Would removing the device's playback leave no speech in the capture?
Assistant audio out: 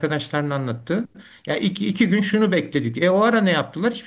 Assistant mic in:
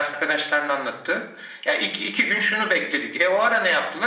Yes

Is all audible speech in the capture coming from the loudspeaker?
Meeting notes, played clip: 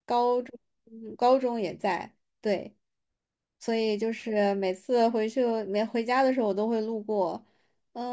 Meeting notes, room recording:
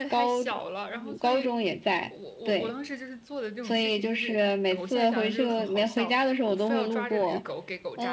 No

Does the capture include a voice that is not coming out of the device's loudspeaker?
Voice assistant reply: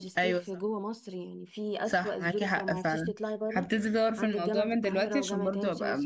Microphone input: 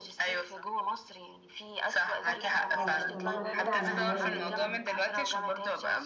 Yes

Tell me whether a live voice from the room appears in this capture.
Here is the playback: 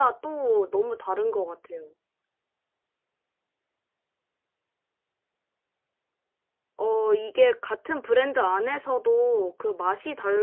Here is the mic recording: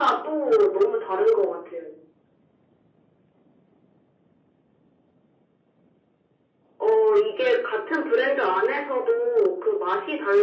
No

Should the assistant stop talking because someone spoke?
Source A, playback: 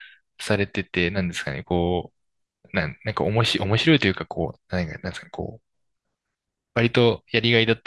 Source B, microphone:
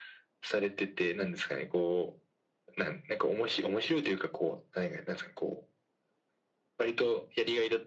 No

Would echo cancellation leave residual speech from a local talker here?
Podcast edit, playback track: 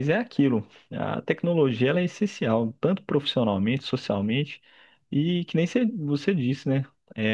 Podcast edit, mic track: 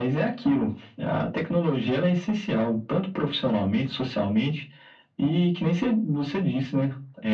No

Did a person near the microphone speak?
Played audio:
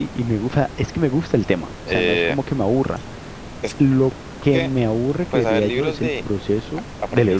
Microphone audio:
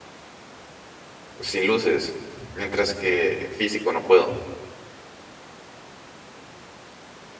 Yes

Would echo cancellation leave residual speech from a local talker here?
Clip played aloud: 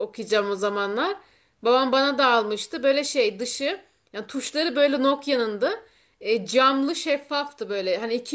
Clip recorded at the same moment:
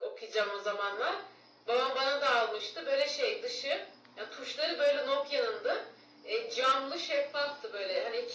No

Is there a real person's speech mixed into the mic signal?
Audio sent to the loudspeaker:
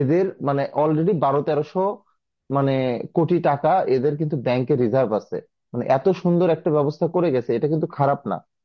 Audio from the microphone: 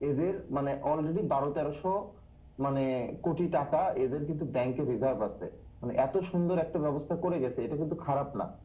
No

